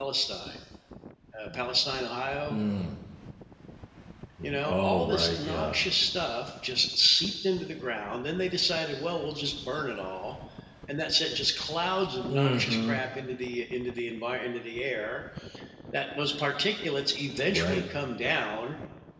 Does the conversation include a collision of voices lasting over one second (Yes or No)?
Yes